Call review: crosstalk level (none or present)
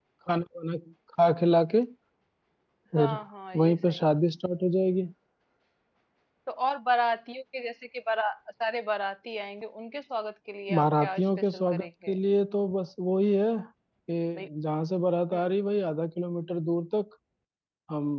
present